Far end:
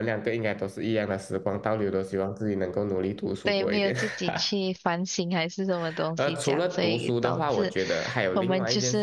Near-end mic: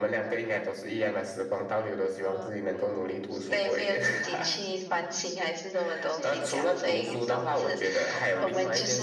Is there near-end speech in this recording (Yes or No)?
Yes